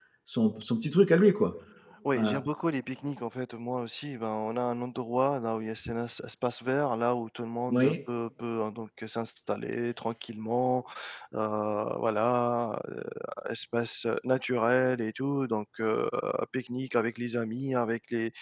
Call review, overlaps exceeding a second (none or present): none